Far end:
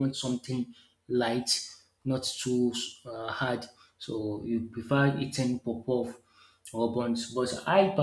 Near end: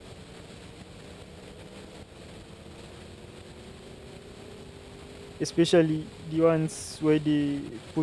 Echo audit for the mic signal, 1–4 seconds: neither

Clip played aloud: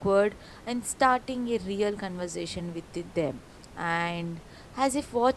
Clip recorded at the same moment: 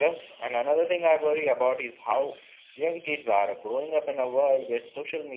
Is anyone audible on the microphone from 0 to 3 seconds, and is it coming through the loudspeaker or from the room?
user only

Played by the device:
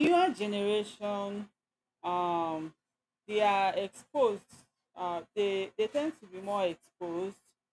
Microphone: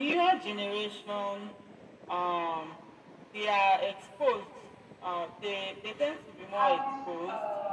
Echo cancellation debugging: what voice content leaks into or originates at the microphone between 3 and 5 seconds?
echo only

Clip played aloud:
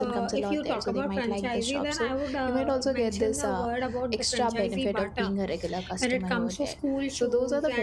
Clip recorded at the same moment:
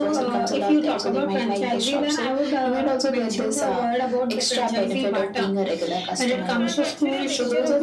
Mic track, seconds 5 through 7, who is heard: both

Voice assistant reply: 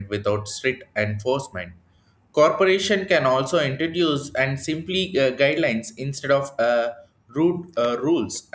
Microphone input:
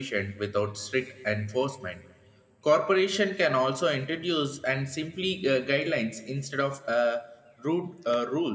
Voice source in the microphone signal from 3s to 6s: echo only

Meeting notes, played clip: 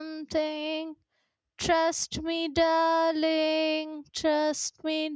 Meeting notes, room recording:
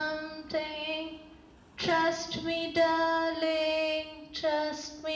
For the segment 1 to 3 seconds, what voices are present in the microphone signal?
echo only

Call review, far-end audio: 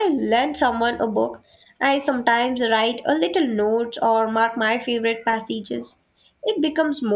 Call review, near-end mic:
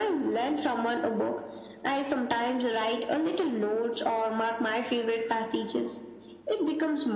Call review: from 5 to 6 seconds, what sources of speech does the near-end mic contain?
echo only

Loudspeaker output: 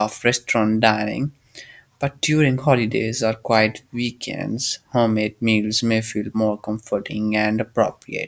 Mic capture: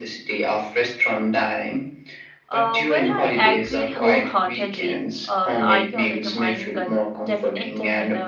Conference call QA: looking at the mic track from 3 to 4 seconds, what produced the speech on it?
both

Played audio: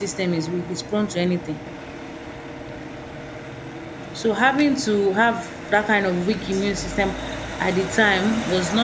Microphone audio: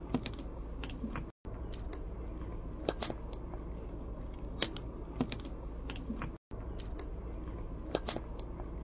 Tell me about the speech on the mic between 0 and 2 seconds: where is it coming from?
neither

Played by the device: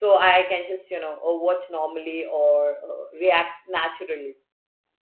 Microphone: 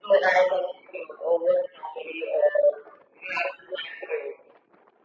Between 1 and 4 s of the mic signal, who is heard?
echo only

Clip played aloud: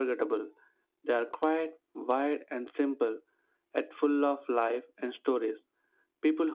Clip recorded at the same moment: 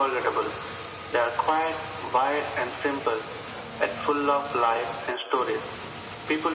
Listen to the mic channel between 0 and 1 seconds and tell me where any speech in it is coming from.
echo only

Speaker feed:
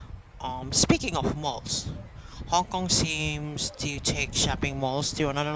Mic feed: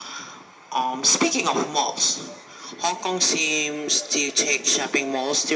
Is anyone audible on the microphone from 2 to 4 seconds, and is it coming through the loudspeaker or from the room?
echo only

